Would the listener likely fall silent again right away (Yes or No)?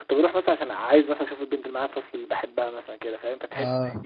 Yes